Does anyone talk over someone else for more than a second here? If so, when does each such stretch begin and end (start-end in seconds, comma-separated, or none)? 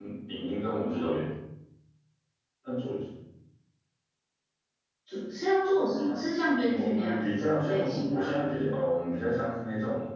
6.6-8.3